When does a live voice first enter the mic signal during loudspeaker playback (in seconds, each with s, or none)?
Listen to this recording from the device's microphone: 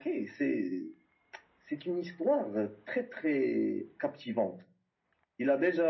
none